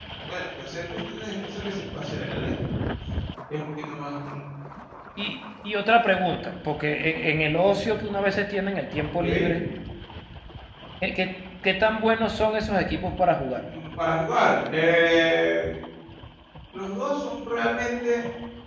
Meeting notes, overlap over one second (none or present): none